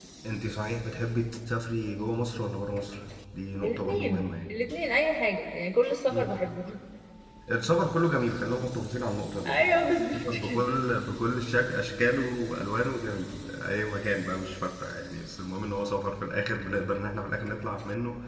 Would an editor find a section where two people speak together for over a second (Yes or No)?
Yes